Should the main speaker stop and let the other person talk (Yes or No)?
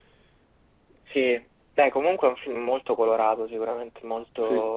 No